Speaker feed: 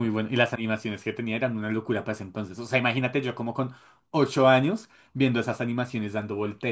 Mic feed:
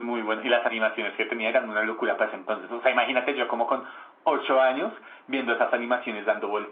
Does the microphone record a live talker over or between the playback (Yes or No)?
No